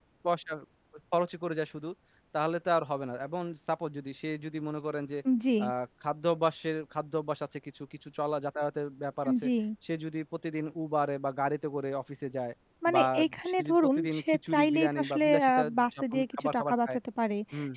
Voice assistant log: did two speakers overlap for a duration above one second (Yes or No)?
Yes